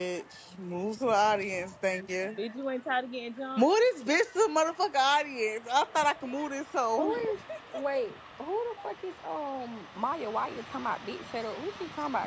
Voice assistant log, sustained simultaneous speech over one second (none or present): none